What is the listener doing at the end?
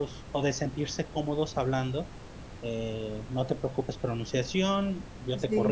listening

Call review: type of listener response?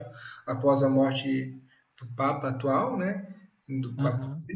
listening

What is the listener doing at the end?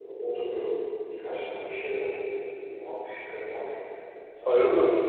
taking over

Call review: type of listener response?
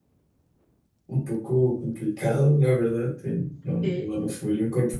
listening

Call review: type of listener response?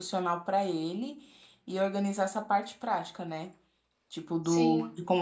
listening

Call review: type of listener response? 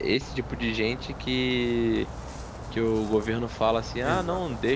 listening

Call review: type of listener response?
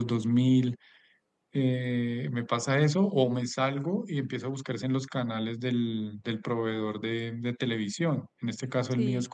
listening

